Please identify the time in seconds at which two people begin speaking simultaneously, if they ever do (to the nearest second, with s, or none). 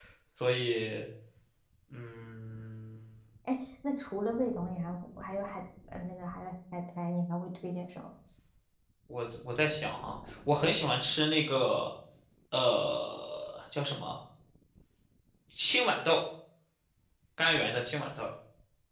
none